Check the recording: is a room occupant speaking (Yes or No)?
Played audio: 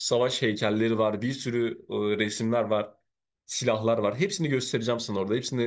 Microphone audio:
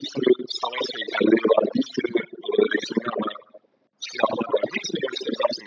No